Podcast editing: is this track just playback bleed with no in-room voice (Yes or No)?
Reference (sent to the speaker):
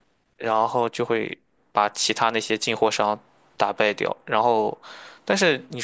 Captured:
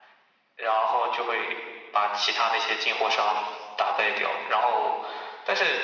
Yes